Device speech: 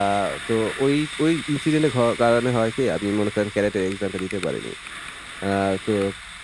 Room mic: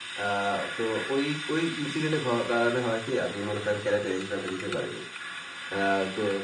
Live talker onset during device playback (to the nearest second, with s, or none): none